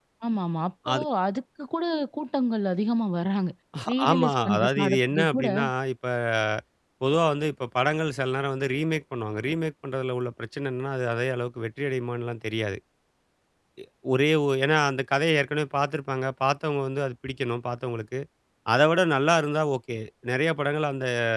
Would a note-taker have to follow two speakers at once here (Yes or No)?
Yes